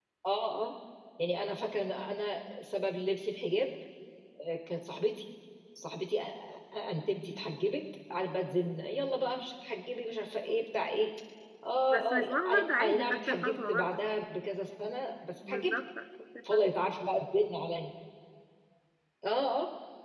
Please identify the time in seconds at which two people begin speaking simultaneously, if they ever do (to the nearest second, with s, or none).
12 s